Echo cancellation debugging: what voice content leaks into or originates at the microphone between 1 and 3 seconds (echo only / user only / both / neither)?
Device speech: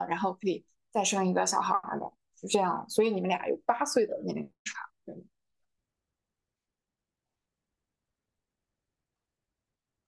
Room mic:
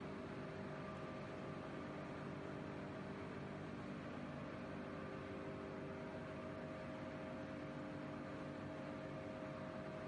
neither